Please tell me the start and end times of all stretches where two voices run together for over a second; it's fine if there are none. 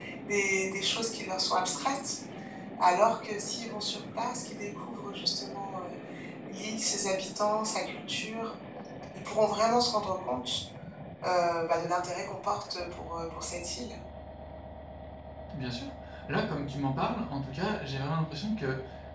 none

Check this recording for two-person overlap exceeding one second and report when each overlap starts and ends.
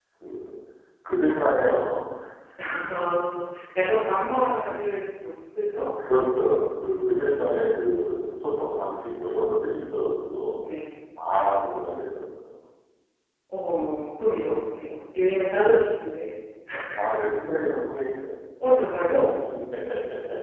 none

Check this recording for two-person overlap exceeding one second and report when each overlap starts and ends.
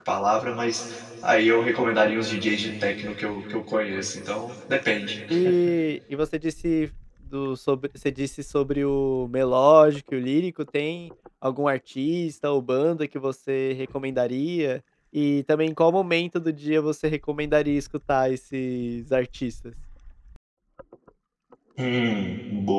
none

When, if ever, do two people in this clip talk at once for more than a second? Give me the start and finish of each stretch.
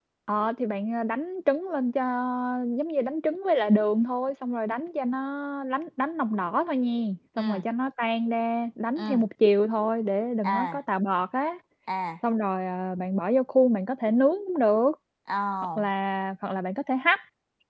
none

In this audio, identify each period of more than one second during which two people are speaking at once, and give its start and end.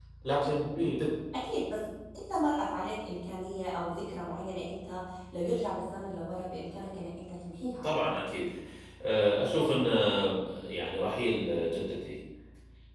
none

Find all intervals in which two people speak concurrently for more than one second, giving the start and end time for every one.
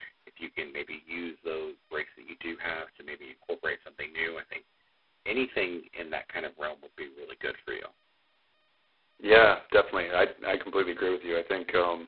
none

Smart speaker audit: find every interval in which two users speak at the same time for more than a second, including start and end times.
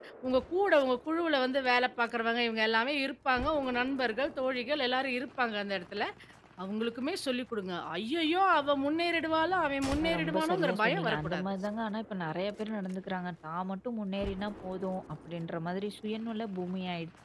10.0-11.5

